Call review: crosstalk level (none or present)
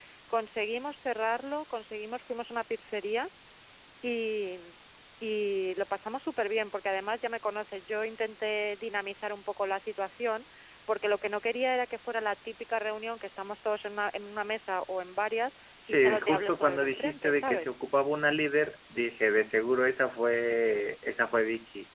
present